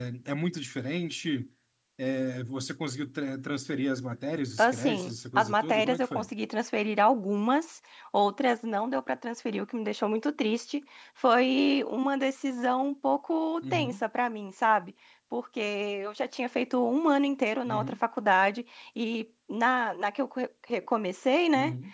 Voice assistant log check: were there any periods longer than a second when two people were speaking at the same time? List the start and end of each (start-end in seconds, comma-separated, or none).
4.6-6.3